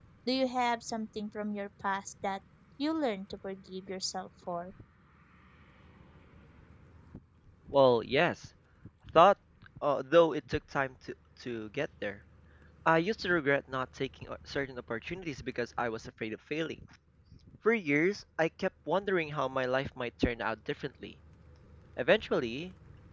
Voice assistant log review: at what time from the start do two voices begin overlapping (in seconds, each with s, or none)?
none